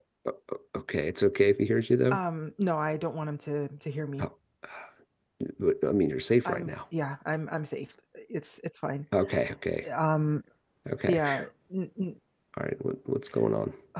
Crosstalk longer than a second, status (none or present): none